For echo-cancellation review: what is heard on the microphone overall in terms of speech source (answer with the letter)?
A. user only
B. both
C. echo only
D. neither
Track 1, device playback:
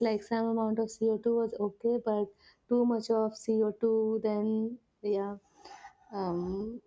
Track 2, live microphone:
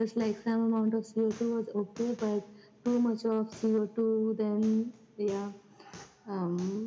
C